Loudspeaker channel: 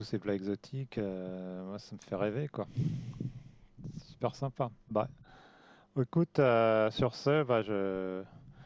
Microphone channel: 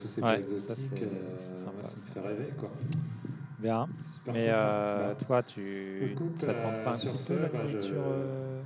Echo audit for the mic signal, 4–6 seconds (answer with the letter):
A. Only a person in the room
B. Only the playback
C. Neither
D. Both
D